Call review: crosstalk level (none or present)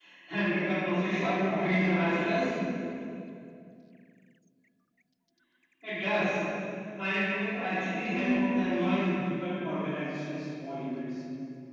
present